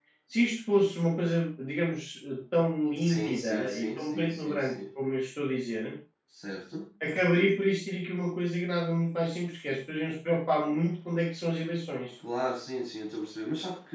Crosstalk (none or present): present